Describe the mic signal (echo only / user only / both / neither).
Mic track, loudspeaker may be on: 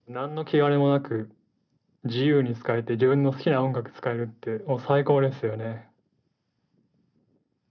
echo only